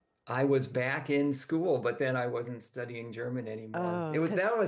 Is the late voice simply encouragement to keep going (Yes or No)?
Yes